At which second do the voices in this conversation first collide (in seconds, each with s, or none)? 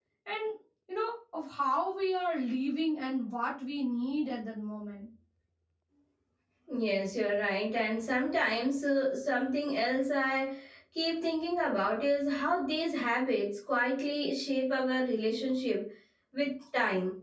none